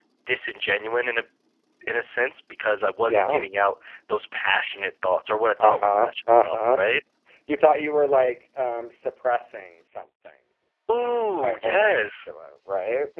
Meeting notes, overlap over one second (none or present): present